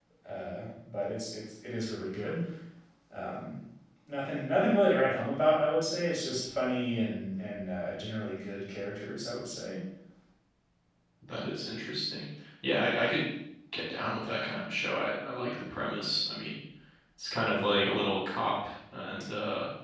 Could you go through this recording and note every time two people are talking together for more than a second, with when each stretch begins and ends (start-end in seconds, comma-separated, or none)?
none